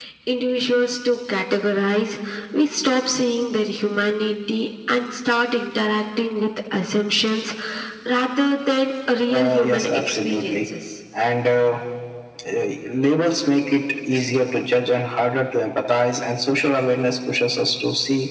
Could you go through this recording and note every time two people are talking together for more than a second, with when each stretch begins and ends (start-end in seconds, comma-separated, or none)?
9.3-10.7